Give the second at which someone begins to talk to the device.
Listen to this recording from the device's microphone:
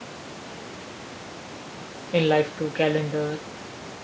2 s

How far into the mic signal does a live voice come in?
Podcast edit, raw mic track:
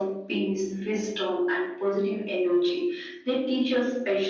none

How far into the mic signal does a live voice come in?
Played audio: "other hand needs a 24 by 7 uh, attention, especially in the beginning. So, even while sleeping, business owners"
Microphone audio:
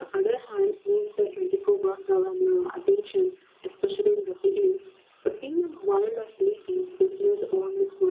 none

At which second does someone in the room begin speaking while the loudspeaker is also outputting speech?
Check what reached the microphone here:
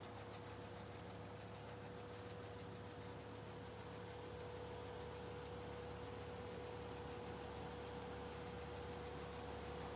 none

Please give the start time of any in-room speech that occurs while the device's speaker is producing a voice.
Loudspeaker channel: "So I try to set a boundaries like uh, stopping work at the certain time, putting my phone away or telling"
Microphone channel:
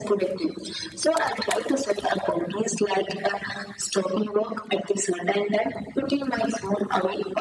none

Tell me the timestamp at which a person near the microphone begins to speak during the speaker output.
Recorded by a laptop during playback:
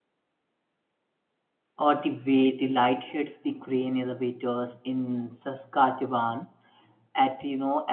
2 s

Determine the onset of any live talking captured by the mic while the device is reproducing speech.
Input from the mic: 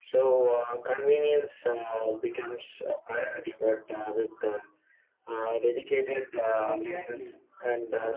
7 s

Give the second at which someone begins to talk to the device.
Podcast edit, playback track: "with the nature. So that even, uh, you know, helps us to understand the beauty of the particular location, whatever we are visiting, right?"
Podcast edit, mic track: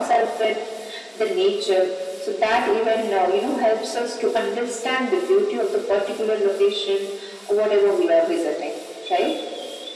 none

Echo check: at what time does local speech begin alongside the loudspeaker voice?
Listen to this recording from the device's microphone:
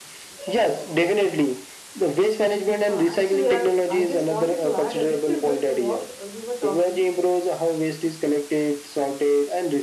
3 s

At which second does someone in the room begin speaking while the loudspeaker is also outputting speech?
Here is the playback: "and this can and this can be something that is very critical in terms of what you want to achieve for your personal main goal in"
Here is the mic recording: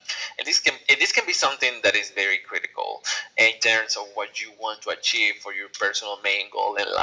none

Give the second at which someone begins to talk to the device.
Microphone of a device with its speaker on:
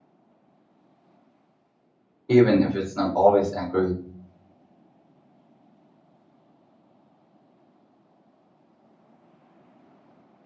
2 s

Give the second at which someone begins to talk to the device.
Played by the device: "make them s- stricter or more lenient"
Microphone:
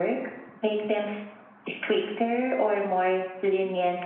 none

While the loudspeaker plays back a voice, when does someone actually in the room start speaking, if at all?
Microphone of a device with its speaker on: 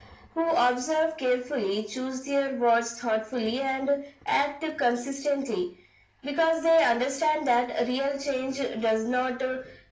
none

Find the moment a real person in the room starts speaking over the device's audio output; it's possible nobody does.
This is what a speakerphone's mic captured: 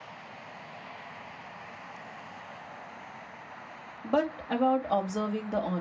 4 s

